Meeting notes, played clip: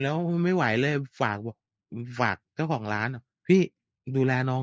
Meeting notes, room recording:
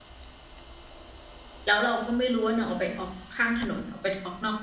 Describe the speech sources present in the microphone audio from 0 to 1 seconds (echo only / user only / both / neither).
neither